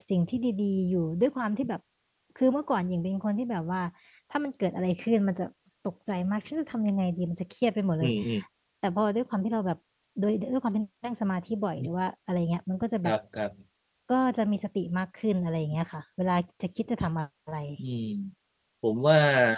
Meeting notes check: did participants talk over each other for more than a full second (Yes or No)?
No